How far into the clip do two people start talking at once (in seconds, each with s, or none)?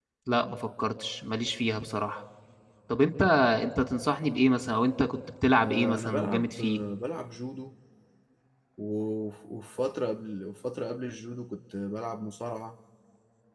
5.6 s